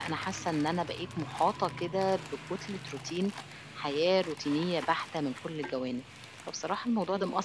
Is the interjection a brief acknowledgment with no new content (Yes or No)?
Yes